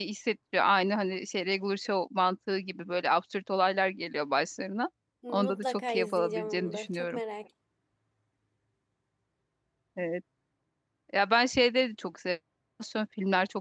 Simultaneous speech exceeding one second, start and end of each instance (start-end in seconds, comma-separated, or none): 5.3-7.2